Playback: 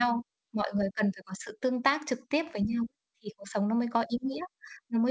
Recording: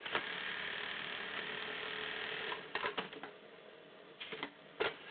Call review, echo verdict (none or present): none